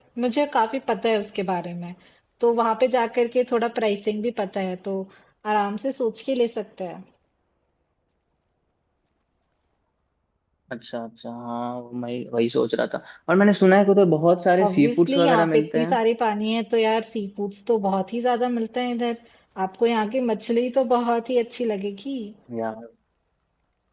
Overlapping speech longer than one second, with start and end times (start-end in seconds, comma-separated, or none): 14.7-16.0